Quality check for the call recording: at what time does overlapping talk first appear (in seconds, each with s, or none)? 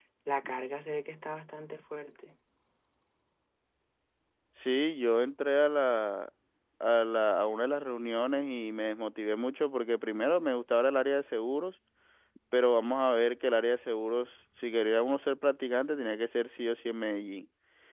none